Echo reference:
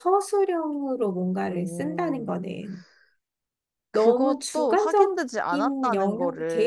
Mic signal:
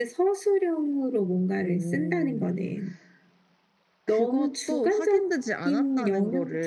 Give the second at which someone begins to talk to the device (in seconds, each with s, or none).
none